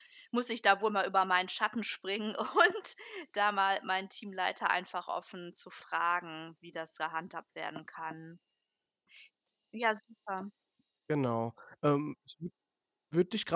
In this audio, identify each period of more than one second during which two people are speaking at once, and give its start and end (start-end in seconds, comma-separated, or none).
none